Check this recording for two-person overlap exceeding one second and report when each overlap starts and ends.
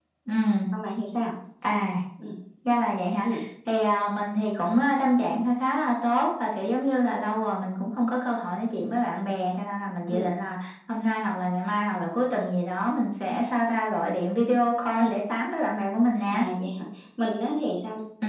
none

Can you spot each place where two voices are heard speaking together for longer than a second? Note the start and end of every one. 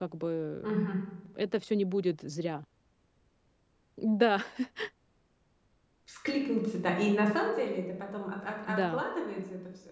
none

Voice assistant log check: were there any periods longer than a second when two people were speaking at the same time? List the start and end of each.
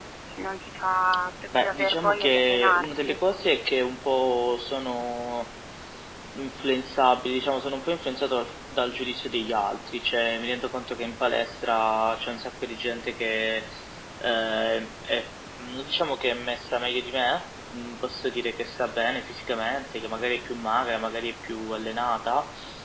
1.6-3.2

